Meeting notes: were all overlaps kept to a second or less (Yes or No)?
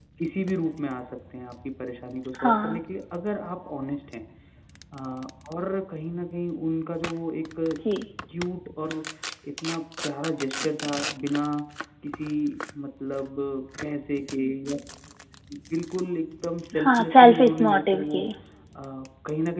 No